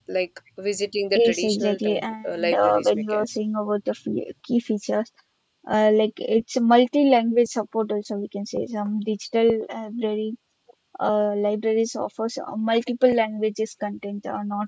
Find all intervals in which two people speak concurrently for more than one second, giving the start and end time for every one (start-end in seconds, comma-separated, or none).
1.2-3.4